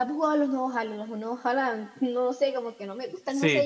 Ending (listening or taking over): taking over